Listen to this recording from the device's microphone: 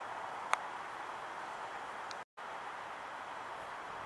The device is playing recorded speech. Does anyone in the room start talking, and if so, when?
none

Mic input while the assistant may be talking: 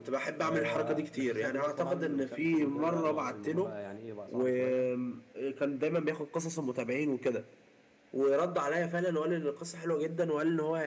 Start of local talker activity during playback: 0.4 s

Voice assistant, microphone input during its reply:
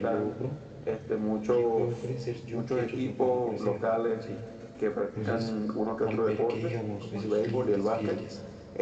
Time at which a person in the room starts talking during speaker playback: 5.1 s

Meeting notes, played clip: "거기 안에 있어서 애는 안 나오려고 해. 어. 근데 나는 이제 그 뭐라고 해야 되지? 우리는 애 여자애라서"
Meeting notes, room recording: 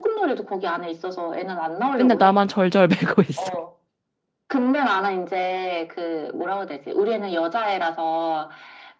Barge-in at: 2.0 s

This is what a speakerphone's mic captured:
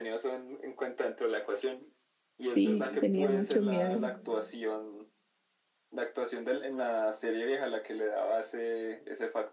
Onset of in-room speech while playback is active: 2.4 s

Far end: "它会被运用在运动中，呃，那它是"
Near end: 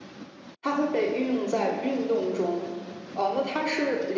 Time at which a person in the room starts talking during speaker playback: none

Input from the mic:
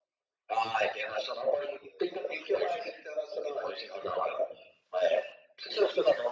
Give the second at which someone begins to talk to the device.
none

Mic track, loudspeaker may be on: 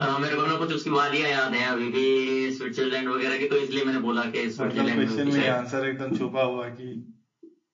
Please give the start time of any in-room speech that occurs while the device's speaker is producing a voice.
4.6 s

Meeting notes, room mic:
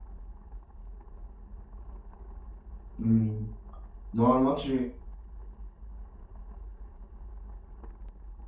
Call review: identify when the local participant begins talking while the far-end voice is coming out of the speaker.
3.0 s

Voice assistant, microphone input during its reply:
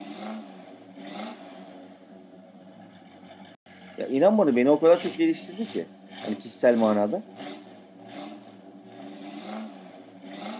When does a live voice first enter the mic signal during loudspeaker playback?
4.0 s

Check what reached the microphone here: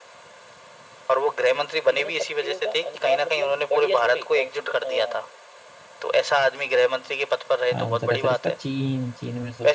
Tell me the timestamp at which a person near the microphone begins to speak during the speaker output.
7.8 s

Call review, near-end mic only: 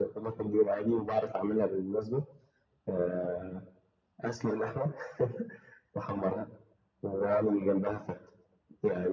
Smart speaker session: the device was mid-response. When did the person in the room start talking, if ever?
none

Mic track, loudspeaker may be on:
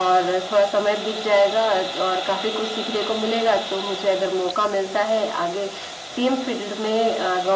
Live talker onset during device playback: none

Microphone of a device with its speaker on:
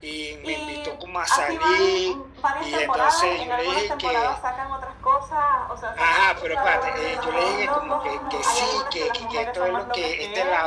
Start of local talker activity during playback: 6.5 s

